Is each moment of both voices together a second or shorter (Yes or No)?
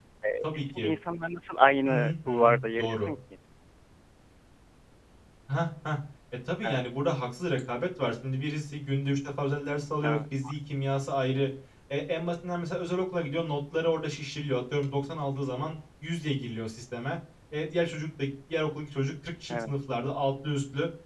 No